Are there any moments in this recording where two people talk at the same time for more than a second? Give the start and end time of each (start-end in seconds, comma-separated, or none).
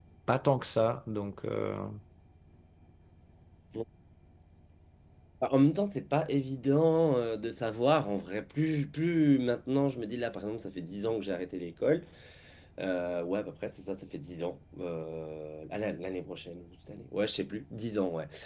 none